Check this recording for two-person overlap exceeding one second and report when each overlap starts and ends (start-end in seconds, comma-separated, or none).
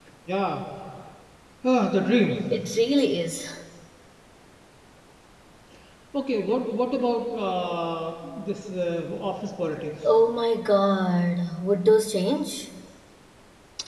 none